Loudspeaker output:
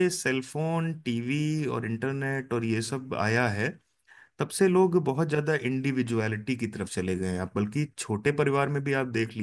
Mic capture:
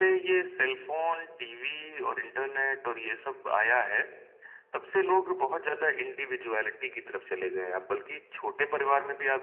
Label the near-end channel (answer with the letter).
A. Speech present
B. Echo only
B